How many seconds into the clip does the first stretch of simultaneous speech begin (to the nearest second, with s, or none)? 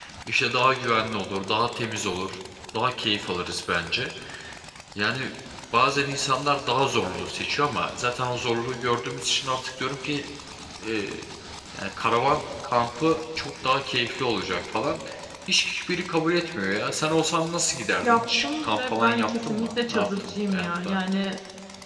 18 s